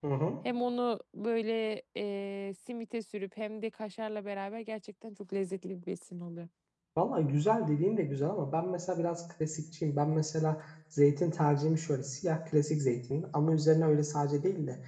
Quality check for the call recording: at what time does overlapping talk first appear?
none

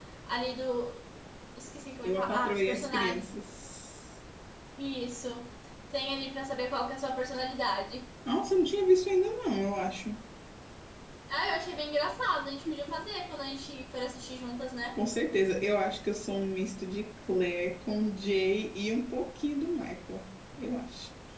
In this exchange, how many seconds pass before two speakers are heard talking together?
2.0 s

